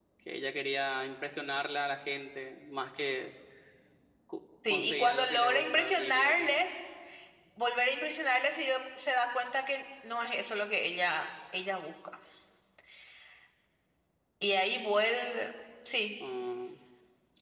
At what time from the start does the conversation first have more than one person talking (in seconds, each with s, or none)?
4.7 s